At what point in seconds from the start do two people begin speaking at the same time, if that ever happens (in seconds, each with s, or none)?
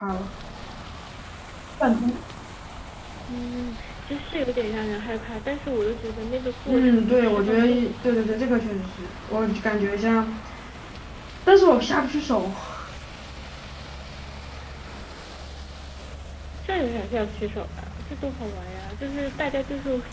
6.7 s